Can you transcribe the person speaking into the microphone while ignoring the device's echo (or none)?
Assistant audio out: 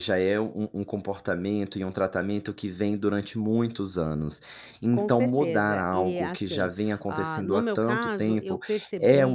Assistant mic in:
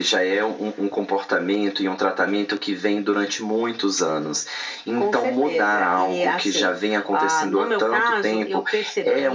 none